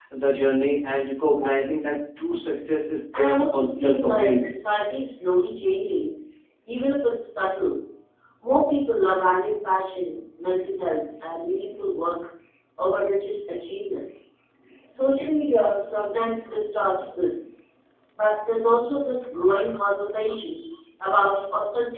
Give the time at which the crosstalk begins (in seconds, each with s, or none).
3.1 s